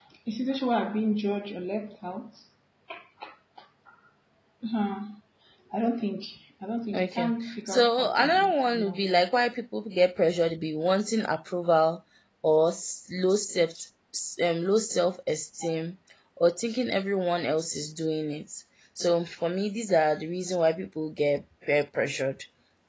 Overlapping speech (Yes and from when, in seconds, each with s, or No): Yes, from 6.9 s